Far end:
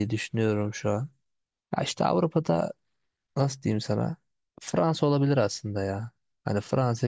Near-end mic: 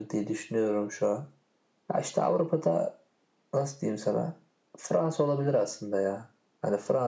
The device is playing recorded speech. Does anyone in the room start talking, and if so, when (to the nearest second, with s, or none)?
none